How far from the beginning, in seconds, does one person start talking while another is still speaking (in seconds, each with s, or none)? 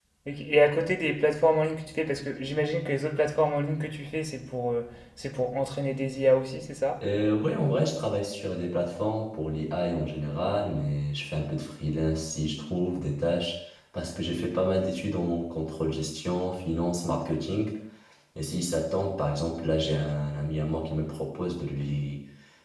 none